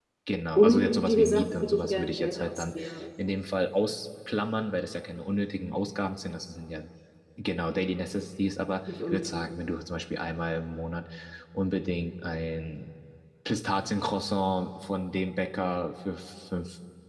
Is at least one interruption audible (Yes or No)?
Yes